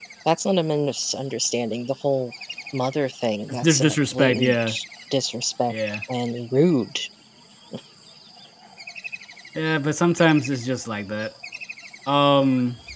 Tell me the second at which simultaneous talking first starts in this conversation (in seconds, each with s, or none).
3.5 s